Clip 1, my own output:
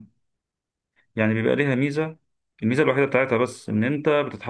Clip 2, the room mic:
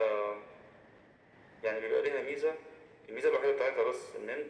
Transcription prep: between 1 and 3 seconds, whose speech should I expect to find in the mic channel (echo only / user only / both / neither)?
echo only